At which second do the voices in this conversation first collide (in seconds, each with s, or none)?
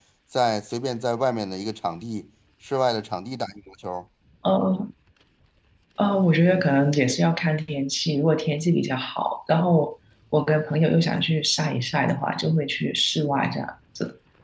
none